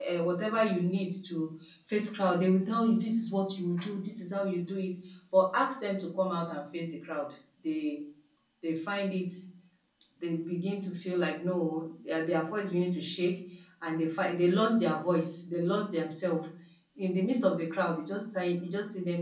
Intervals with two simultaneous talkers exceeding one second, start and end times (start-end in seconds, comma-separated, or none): none